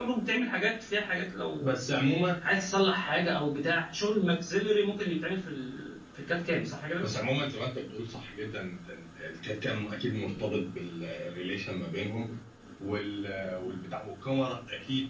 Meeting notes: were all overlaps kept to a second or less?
Yes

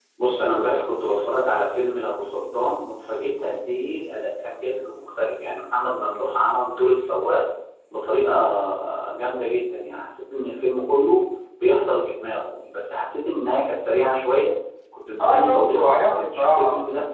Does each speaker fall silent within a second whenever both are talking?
No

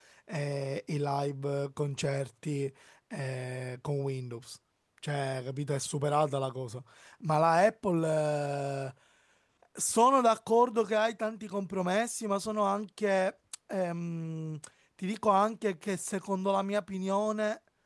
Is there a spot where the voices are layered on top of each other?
No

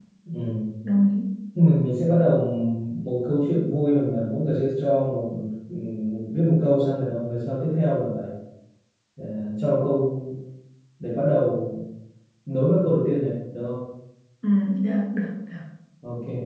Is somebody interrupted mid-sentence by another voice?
No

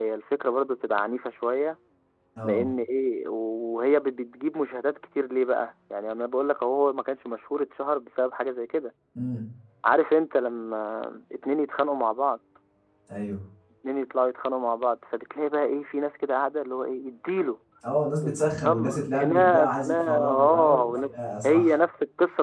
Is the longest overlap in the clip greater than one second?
Yes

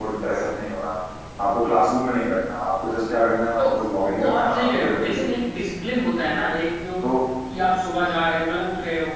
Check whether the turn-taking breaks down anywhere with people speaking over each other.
Yes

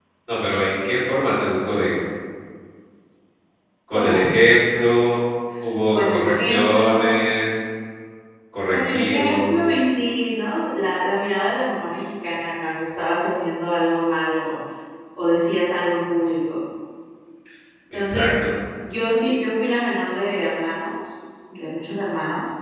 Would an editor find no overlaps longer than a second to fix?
No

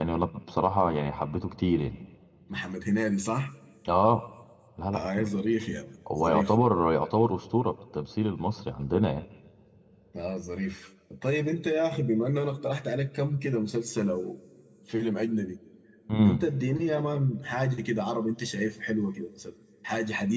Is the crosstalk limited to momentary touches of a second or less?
Yes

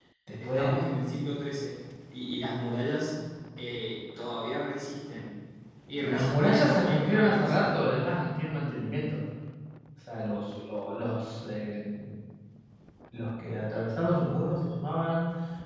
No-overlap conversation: No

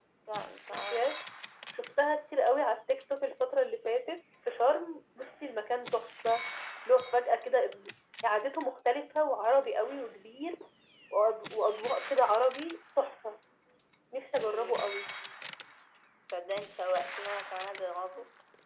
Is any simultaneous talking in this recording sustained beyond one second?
No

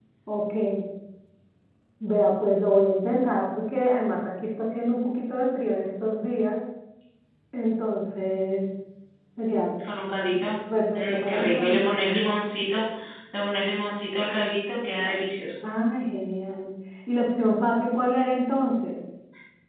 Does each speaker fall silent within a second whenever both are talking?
No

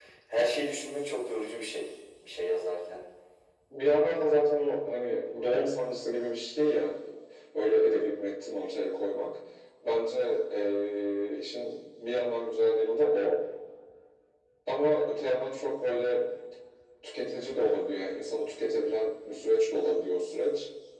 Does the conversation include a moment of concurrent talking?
No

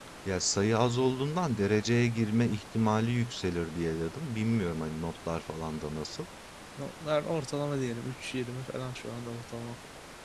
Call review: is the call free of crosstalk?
Yes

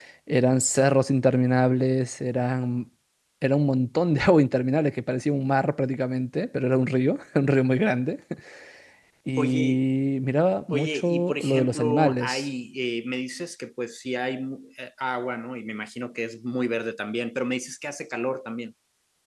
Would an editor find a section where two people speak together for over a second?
Yes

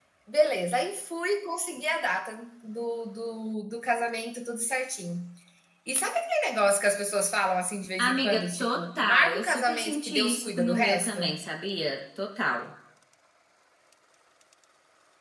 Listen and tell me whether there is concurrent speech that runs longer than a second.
Yes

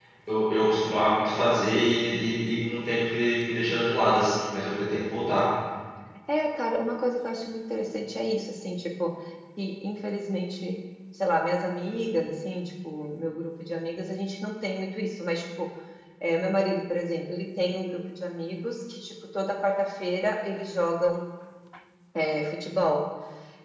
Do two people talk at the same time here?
No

